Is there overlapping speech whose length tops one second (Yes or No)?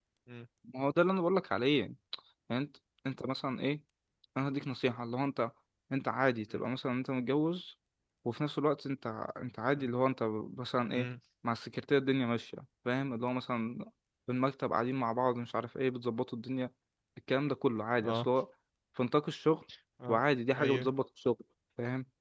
No